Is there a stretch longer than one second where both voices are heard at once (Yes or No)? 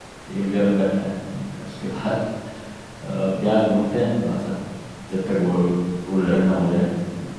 No